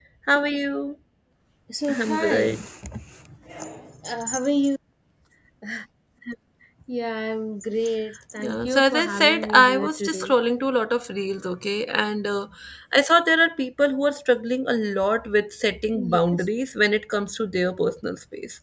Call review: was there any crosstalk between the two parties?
Yes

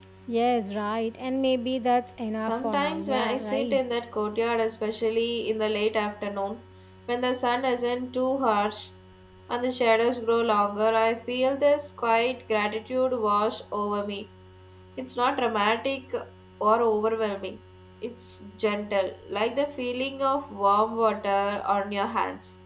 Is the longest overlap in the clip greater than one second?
Yes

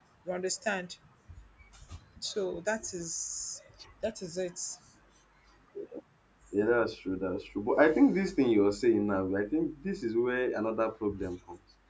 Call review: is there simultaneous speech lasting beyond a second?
No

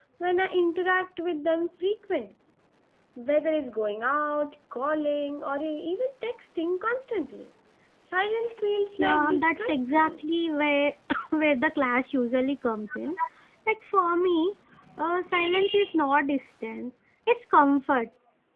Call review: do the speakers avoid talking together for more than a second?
No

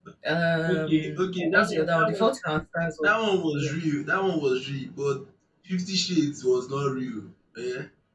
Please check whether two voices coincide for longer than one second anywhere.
Yes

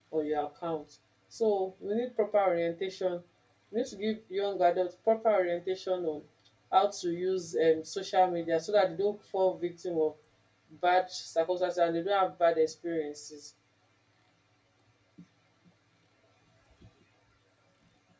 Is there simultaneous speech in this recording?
No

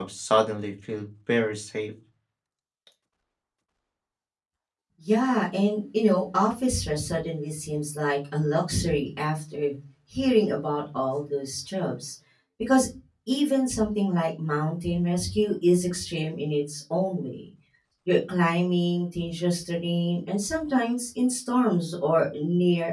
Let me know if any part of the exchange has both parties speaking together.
No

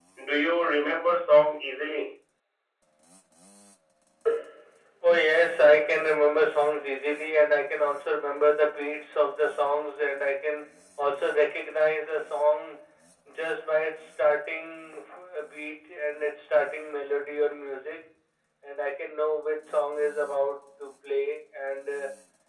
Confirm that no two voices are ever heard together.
Yes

